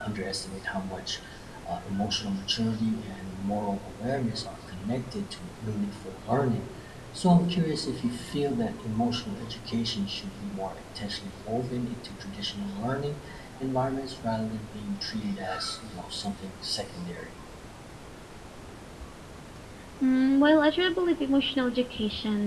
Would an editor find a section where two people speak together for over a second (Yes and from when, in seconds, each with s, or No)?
No